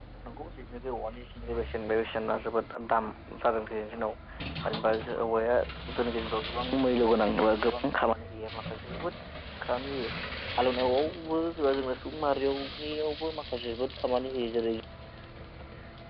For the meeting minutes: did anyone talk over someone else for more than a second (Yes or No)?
No